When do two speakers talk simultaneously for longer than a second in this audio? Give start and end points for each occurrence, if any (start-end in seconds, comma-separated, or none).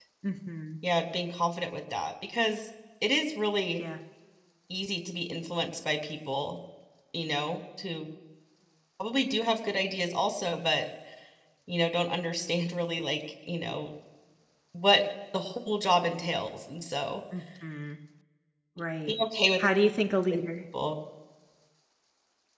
none